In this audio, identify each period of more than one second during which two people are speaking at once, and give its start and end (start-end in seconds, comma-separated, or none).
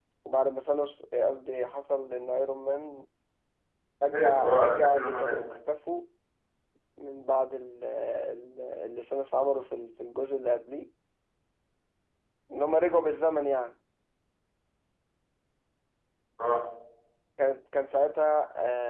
4.0-5.4